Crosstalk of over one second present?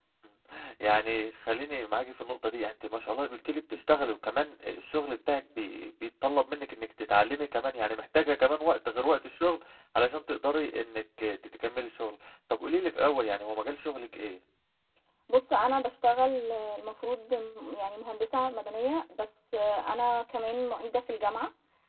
No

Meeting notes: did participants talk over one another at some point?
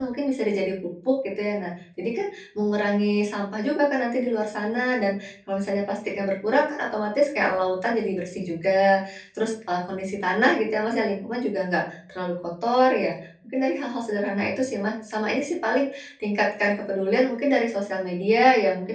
No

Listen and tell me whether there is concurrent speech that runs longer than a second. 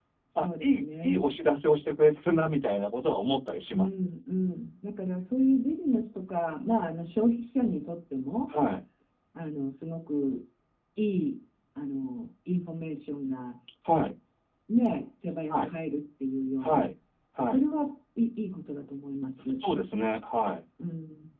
No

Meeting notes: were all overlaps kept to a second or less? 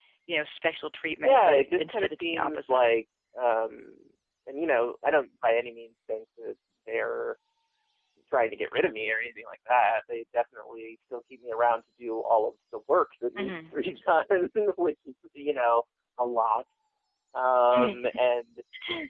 No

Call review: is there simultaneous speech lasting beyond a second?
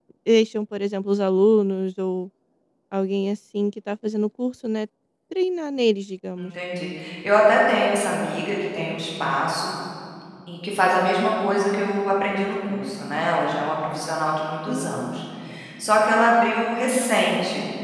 No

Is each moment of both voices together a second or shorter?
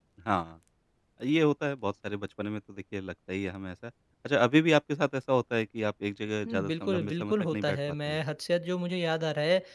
No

